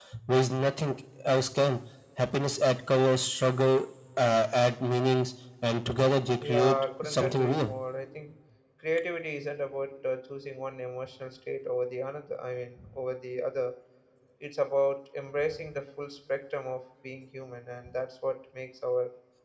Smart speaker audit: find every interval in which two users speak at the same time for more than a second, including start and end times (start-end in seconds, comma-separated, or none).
6.4-7.7